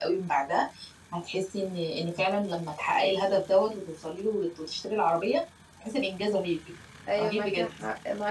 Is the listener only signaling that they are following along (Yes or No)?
No